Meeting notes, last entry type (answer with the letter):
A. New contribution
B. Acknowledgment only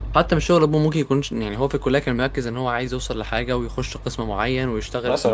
B